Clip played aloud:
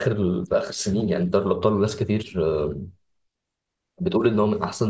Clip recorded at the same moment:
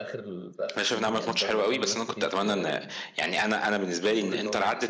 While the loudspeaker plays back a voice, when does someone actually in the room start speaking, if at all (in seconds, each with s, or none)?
0.8 s